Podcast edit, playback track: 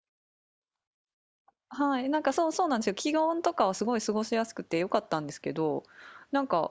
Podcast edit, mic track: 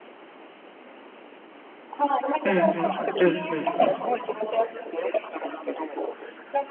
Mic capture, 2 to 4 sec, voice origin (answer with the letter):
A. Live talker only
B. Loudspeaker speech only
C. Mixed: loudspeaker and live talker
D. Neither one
C